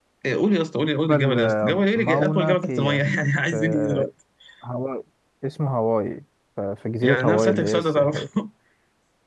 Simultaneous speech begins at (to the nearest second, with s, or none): 1 s